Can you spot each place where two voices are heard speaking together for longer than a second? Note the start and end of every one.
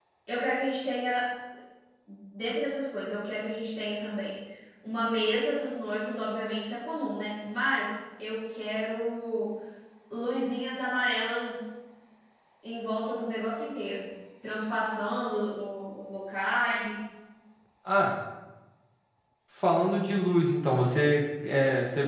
none

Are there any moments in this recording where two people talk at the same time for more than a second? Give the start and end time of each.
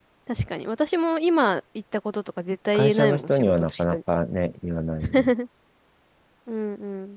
2.7-4.0

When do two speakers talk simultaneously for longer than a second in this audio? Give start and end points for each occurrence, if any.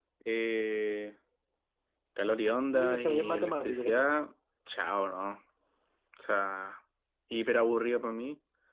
2.7-4.1

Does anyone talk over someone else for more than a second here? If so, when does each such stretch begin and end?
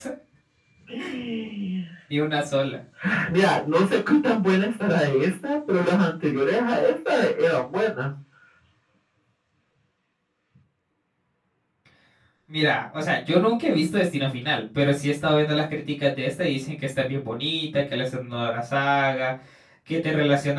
none

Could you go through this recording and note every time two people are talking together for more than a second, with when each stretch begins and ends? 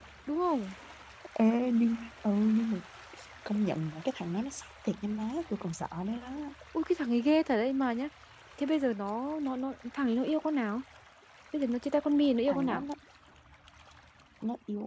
none

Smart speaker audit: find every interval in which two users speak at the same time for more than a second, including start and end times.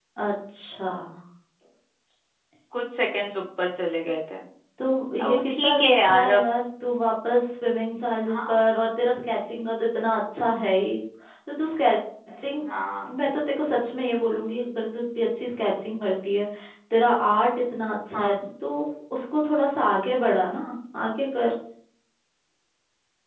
5.2-6.4

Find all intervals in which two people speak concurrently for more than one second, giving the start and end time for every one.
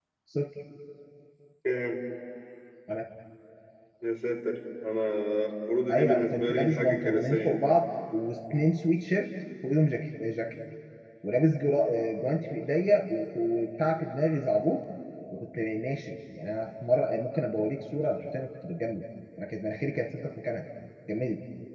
5.9-7.6

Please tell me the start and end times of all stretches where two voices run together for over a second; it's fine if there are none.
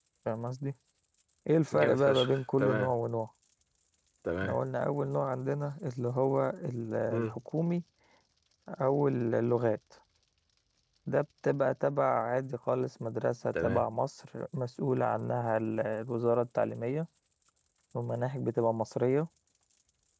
1.7-2.9

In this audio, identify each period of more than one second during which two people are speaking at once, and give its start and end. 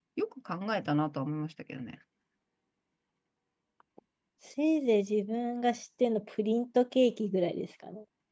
none

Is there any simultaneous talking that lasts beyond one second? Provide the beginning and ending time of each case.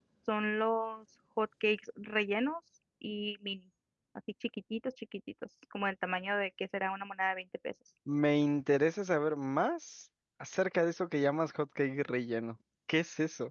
none

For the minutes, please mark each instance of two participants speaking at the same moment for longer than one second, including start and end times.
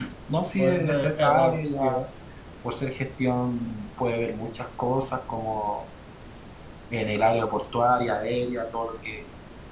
0.6-2.0

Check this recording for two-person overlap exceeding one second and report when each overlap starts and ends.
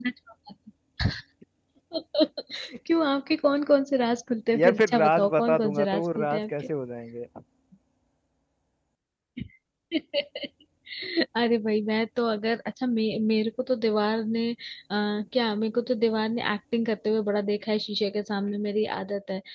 4.5-6.5

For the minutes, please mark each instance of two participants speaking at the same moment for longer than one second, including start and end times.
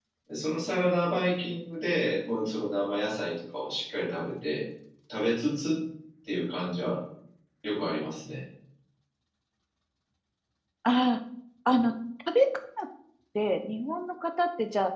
none

